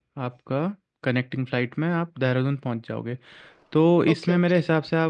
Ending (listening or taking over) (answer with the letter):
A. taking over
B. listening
B